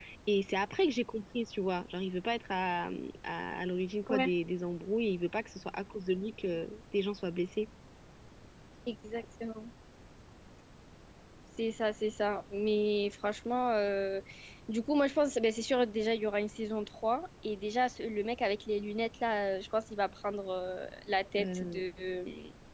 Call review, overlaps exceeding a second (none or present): none